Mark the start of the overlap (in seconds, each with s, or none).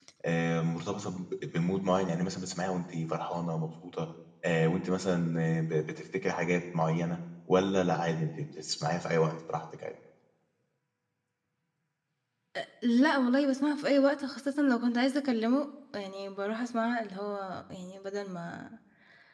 none